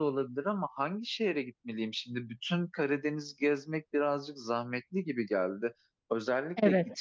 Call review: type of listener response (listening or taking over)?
listening